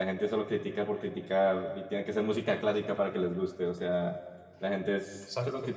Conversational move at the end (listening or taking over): listening